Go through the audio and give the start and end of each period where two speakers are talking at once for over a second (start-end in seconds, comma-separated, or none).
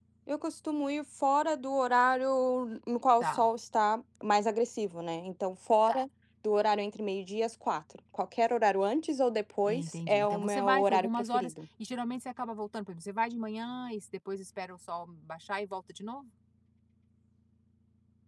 9.7-11.5